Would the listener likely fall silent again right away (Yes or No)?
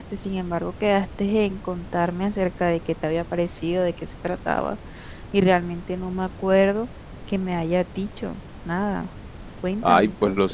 No